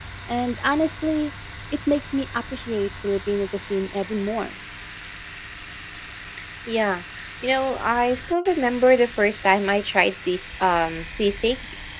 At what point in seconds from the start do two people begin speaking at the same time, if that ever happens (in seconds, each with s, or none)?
none